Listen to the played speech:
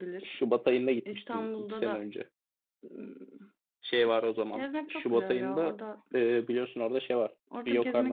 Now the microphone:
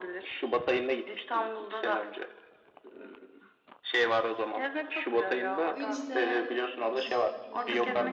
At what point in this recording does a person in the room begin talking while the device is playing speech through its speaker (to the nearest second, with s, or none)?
6 s